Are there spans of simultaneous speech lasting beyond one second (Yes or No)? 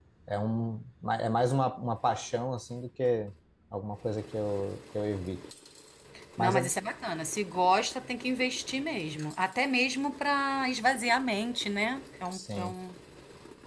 No